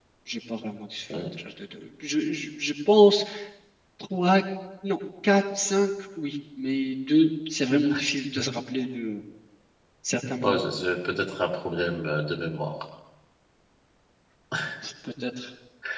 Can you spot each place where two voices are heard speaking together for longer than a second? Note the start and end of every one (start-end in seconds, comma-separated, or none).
none